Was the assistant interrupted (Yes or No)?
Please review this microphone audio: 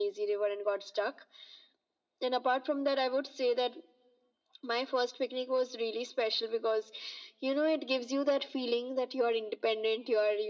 No